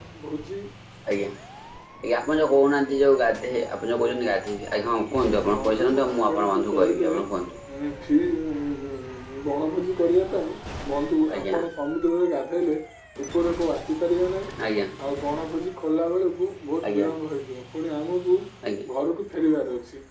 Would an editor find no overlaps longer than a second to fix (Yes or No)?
No